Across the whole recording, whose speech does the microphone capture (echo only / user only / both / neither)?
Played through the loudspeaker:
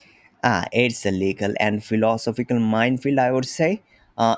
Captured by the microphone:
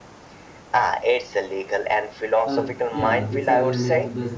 both